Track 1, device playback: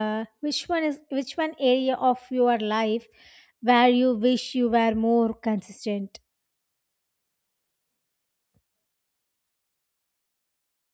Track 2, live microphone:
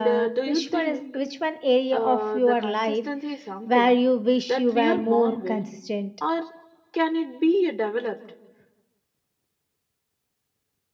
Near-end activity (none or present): present